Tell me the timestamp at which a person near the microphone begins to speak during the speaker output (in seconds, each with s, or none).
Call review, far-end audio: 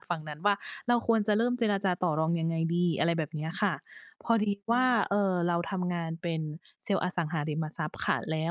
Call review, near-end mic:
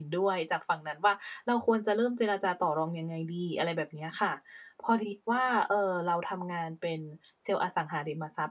none